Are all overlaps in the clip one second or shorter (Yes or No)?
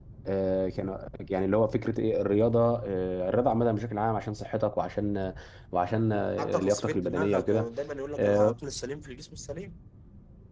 No